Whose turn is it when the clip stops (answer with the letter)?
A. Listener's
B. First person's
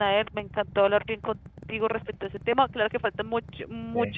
B